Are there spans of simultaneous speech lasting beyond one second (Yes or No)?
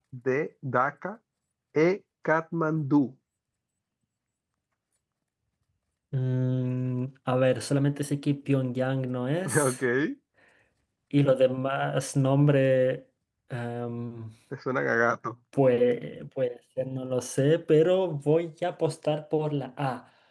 No